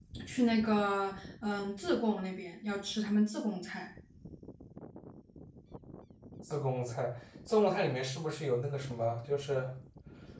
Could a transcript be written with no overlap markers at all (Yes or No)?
Yes